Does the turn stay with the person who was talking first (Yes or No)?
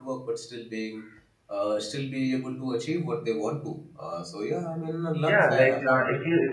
No